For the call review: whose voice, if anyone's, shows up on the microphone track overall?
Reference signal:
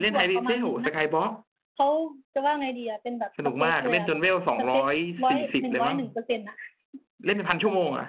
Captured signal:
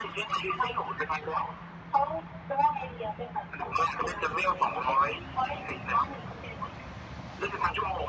echo only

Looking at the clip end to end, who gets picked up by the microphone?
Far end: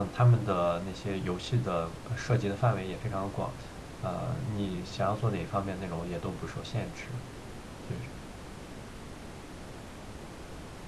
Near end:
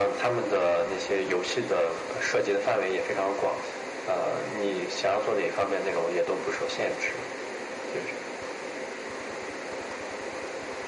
echo only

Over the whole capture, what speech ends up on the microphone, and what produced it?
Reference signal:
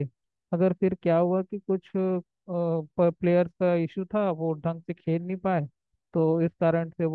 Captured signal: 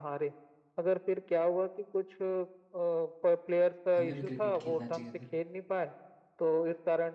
both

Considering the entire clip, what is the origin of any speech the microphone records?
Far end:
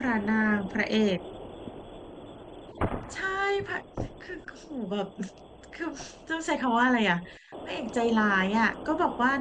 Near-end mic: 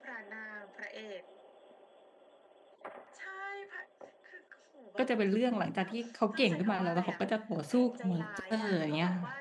both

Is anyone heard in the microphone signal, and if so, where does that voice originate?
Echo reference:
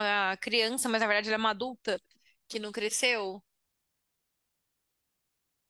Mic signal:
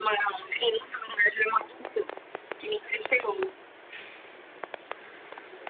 echo only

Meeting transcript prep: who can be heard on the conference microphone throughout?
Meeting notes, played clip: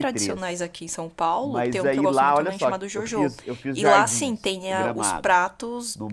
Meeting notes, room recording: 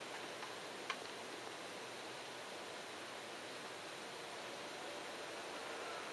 neither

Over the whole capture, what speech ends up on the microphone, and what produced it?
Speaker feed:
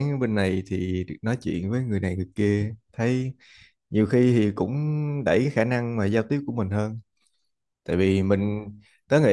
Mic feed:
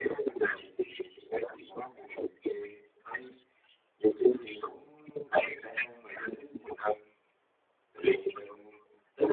echo only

